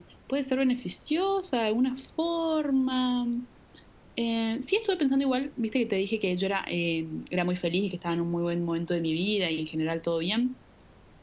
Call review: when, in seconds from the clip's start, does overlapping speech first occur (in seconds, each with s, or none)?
none